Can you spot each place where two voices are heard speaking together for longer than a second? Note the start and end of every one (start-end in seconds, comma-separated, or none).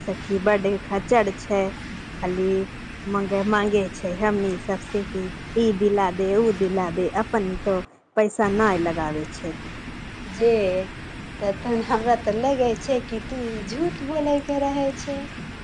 none